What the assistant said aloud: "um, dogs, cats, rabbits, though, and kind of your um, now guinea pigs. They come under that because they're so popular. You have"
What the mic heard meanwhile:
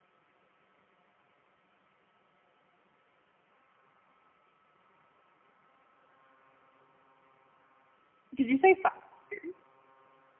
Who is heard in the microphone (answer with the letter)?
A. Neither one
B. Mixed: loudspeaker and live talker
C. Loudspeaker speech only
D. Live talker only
D